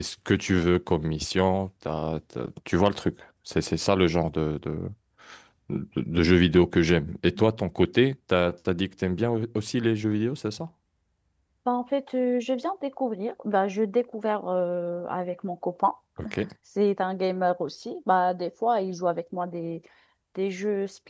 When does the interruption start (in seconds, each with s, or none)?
none